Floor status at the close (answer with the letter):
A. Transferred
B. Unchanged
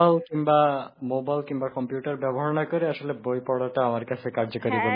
A